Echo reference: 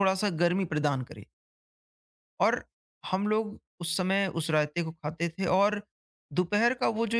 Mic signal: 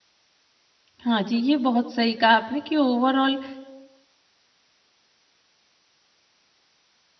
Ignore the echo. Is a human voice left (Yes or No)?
Yes